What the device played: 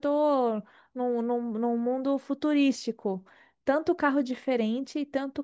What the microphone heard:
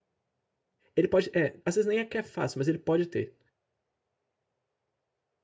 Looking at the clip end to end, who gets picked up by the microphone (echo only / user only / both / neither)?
user only